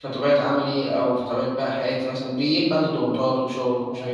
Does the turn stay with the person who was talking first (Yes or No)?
Yes